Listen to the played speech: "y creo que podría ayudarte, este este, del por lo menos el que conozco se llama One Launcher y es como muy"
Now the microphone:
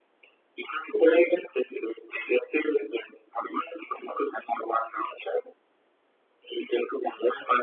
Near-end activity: none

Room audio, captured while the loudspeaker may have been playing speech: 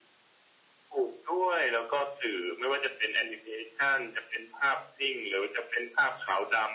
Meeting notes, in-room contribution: none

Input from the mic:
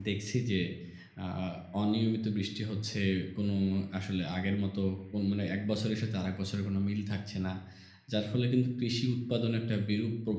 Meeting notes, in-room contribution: present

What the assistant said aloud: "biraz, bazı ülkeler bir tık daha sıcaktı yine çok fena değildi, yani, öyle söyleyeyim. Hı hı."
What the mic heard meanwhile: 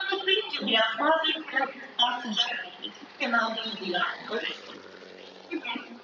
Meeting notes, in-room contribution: none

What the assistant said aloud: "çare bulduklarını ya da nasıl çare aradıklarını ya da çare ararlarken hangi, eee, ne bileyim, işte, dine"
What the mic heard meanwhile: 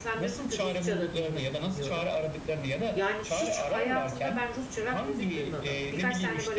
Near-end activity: present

